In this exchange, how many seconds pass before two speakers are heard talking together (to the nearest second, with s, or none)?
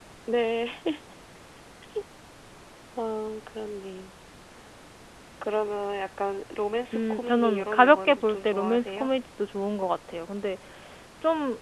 7 s